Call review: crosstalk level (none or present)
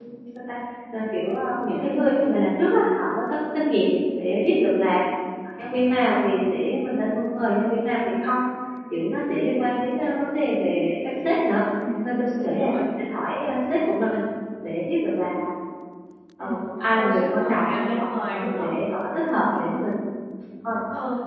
present